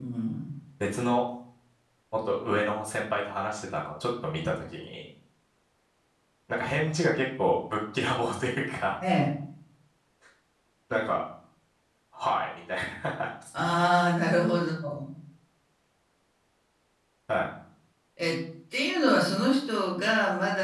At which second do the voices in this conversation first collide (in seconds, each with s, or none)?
none